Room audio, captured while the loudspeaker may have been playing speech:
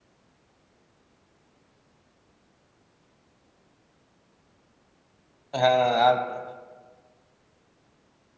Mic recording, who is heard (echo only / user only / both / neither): user only